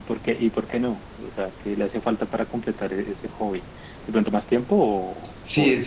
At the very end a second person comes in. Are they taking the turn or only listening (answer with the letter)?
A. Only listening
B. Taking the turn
B